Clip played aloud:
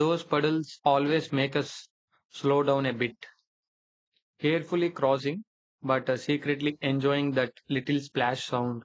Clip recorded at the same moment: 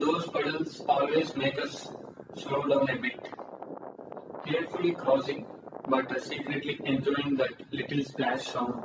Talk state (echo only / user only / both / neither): echo only